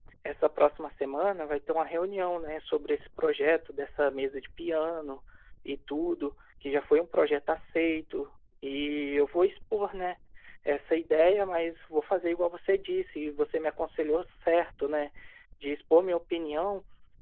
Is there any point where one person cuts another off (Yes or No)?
No